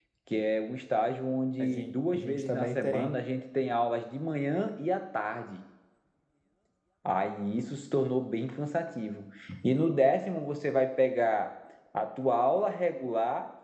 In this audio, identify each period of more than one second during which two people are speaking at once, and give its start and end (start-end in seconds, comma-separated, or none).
1.6-3.1